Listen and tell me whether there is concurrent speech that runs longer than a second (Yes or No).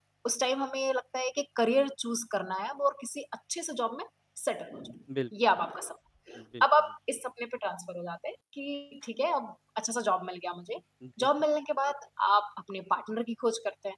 No